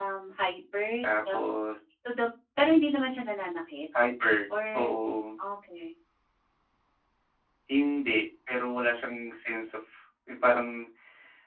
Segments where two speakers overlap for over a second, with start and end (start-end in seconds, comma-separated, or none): none